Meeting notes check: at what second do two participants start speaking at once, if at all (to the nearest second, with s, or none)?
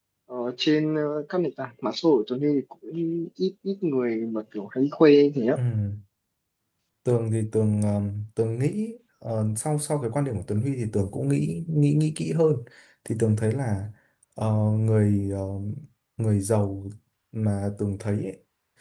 none